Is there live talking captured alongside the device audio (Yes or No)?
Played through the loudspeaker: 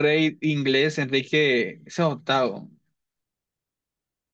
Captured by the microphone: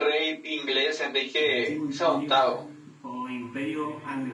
Yes